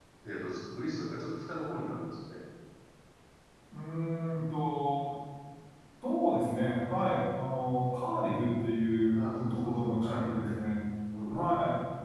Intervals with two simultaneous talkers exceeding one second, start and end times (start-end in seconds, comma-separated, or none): 9.2-10.6